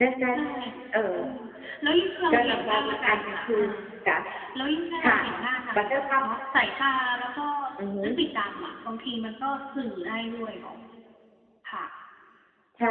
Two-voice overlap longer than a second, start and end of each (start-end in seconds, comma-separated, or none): 2.3-3.6